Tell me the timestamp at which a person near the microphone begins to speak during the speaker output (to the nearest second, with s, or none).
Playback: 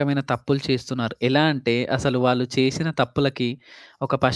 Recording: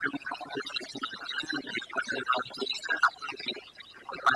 none